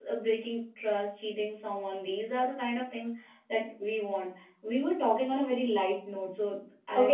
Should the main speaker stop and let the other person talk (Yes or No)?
Yes